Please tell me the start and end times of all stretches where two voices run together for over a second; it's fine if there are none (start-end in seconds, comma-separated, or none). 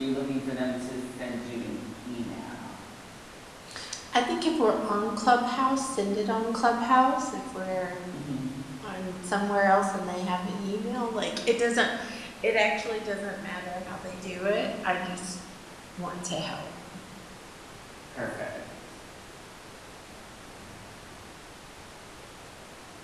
none